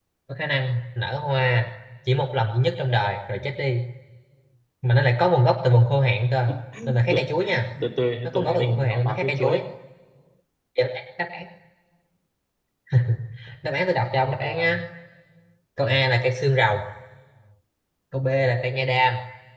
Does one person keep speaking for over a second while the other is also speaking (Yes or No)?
Yes